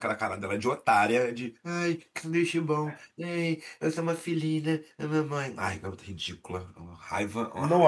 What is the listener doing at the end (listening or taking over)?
taking over